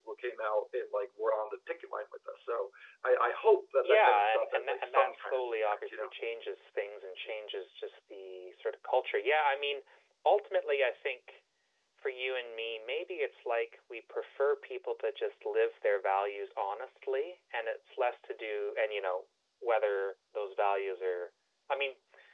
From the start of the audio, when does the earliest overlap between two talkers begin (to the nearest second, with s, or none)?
4 s